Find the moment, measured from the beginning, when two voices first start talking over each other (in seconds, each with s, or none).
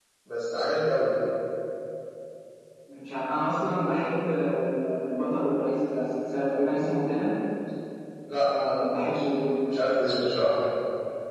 8.4 s